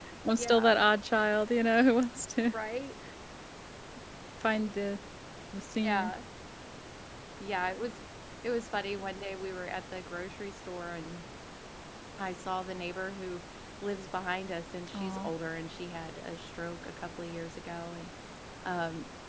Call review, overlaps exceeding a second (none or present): none